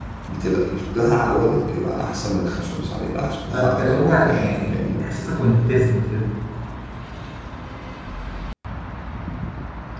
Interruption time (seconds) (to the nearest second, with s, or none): 4 s